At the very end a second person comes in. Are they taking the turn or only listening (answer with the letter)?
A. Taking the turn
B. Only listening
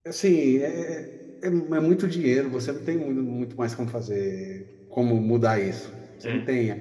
B